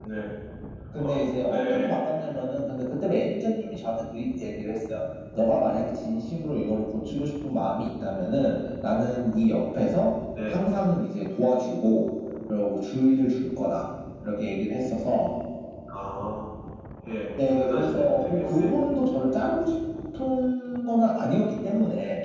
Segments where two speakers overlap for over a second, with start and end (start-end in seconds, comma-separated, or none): 17.4-18.7